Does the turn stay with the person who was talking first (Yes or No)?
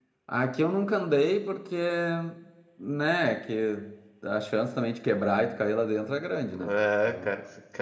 No